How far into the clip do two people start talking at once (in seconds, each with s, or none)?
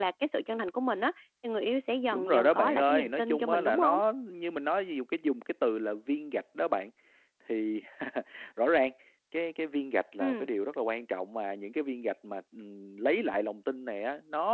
2.1 s